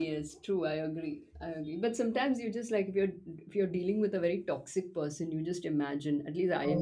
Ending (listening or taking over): listening